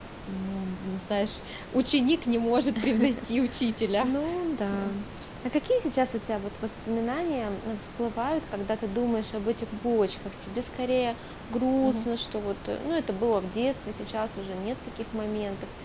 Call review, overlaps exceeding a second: none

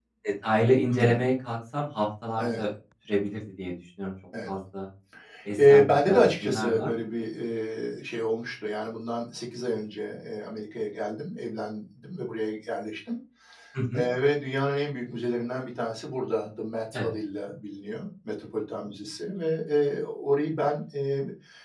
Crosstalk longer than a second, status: present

